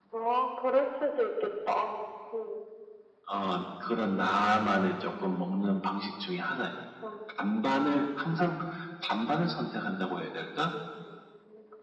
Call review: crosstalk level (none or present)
none